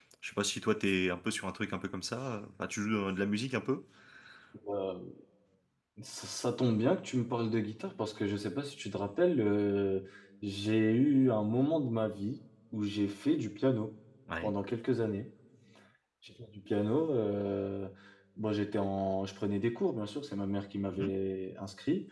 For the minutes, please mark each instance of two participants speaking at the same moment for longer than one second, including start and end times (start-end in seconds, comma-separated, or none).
none